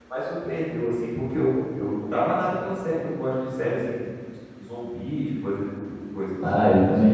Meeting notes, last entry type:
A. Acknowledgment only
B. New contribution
B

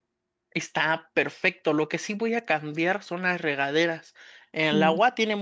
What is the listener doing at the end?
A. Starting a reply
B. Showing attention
B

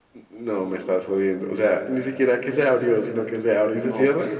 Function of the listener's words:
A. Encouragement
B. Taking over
B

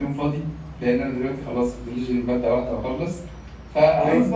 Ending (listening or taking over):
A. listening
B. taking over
A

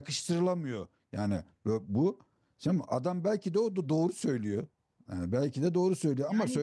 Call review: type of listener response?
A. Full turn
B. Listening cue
B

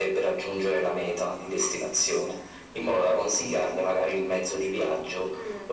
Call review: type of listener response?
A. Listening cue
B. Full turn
A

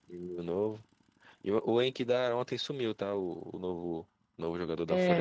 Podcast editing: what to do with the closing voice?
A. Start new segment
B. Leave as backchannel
A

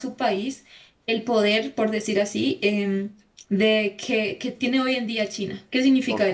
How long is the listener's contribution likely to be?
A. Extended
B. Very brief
A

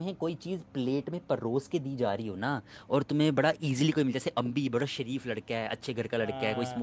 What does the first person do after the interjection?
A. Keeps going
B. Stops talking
A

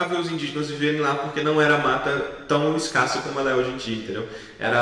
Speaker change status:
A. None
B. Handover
A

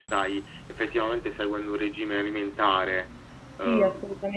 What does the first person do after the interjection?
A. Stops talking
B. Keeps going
A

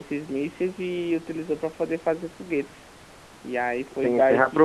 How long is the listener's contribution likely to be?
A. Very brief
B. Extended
B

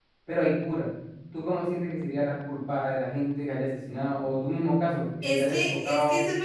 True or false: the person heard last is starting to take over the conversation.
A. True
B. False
A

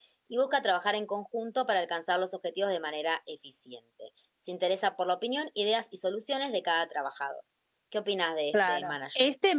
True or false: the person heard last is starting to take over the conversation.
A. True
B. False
A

